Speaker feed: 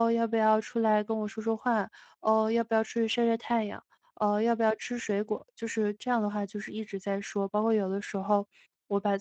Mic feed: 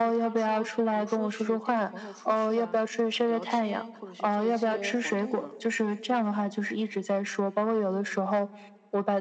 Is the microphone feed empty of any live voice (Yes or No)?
No